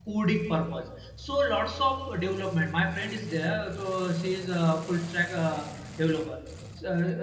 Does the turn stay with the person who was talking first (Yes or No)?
Yes